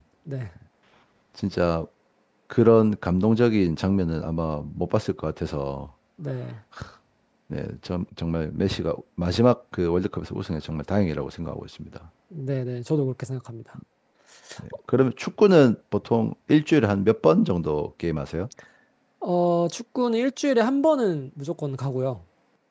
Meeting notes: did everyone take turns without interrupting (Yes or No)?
Yes